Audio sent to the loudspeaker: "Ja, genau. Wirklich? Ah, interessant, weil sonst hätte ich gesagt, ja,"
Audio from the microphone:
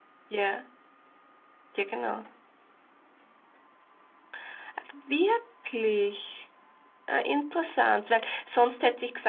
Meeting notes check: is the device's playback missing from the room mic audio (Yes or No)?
No